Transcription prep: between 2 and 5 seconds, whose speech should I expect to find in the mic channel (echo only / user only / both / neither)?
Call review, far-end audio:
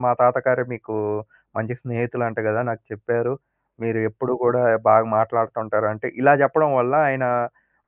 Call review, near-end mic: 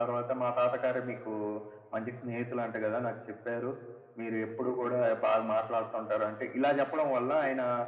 echo only